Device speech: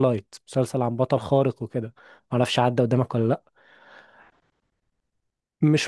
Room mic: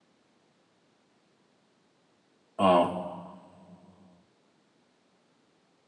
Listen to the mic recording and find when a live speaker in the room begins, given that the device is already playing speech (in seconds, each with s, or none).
2.6 s